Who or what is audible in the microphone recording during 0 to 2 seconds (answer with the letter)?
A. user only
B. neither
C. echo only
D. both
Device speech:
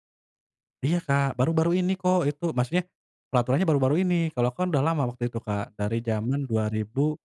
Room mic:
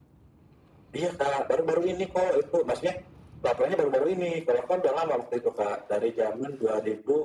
C